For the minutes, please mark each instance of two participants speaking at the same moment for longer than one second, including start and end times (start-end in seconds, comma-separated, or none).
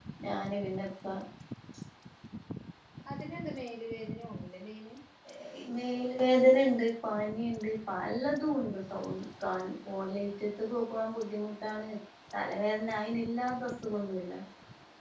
none